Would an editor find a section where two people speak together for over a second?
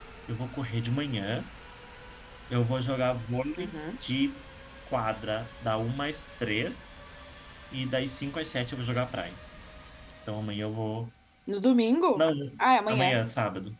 No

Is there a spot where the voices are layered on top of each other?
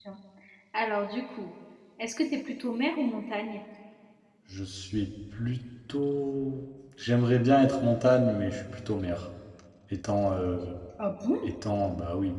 No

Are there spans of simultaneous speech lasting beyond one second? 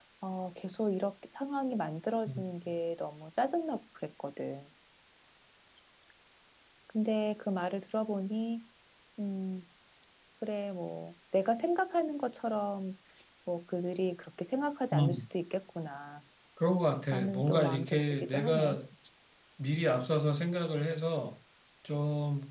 Yes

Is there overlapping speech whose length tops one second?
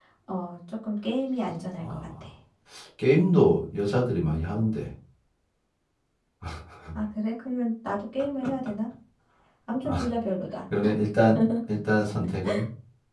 No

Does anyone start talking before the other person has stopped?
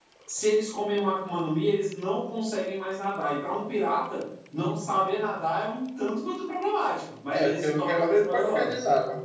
Yes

